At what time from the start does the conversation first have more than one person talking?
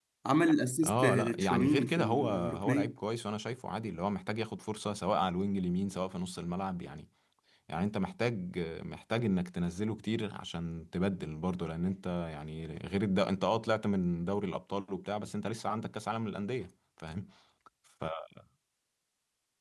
0.8 s

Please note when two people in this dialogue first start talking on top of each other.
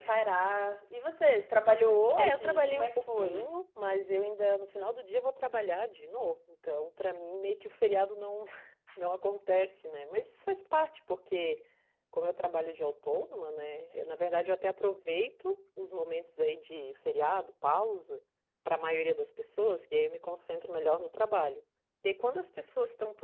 2.2 s

